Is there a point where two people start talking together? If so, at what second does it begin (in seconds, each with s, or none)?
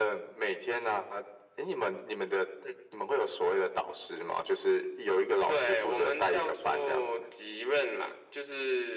5.5 s